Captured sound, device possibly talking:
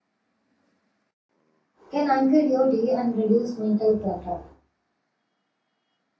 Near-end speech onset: 1.9 s

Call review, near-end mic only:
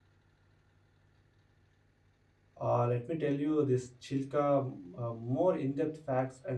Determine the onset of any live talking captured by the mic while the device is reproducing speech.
2.6 s

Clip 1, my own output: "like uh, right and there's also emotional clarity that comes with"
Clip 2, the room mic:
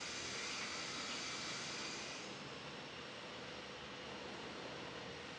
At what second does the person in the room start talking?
none

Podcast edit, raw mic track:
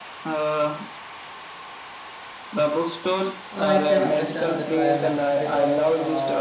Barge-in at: 3.5 s

